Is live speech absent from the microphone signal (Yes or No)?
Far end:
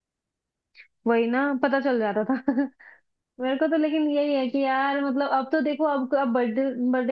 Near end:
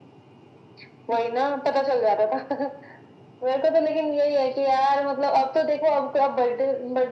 Yes